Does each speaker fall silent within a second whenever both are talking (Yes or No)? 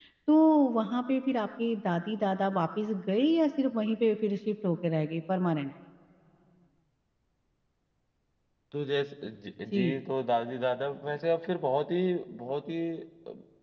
Yes